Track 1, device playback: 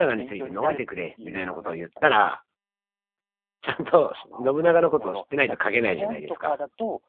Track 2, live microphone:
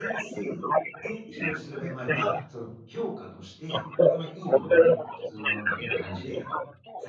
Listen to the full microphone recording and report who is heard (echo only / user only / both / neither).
both